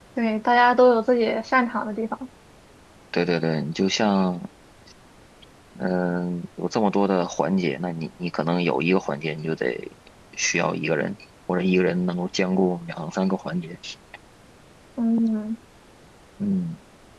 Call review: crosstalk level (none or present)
none